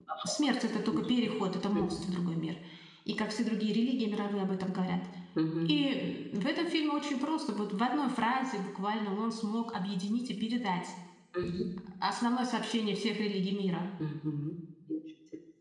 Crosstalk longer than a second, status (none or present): none